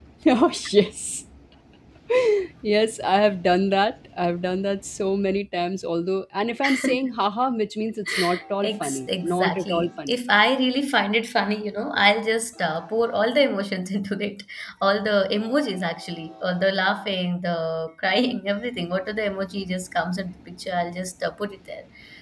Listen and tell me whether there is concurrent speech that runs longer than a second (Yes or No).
Yes